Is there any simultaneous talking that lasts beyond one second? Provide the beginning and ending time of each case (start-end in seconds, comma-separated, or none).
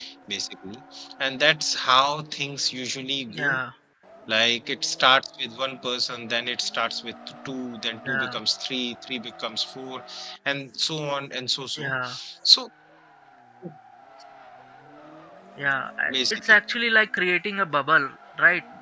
none